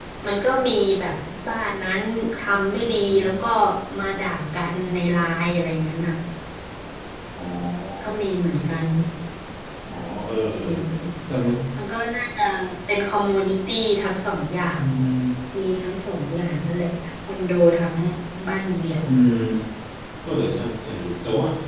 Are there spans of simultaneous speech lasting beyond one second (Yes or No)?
No